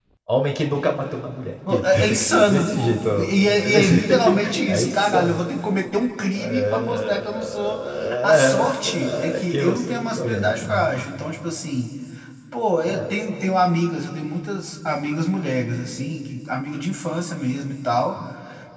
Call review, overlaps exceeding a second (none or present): present